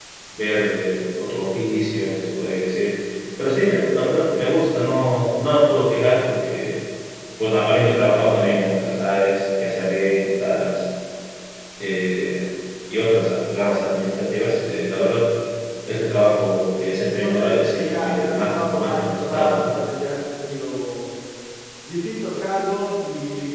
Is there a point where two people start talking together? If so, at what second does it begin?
17 s

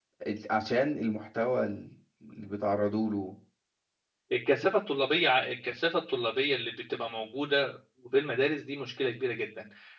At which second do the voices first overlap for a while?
none

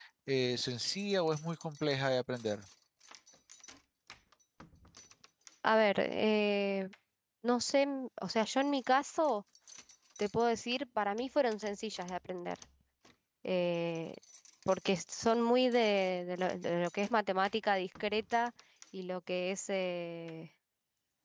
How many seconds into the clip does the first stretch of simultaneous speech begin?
none

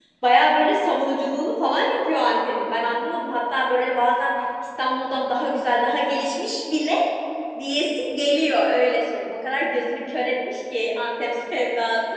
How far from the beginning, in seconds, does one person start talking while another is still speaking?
none

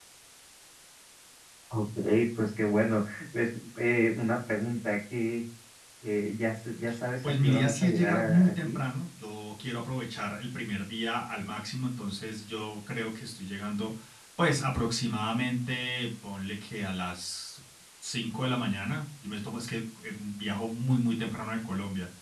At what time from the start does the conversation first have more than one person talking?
7 s

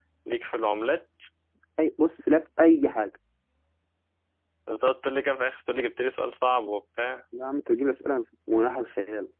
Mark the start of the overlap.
none

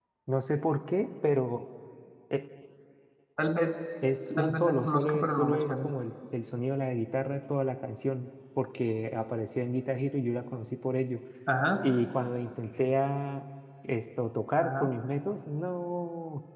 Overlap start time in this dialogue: 4 s

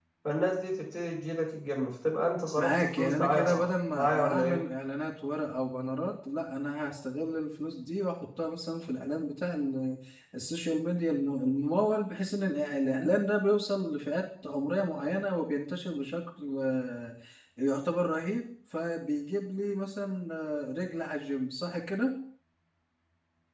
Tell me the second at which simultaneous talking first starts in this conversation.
3 s

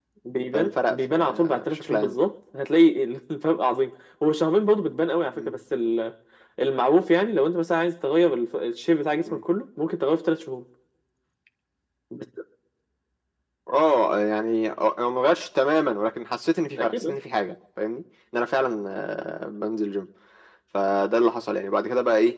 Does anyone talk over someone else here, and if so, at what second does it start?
1 s

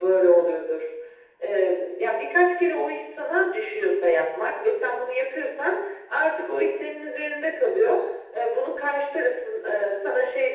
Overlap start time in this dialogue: none

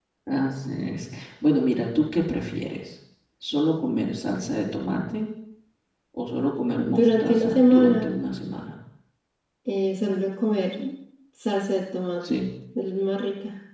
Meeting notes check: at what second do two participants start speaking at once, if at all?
7 s

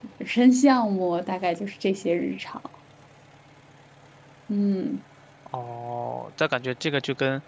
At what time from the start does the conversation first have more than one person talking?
none

